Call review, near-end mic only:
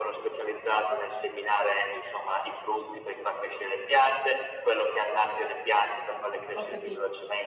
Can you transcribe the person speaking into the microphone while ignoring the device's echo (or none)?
Ho capi